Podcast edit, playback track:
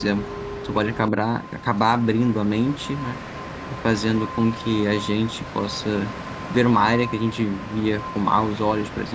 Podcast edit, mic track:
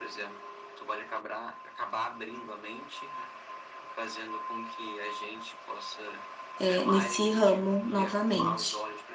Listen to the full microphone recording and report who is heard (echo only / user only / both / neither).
both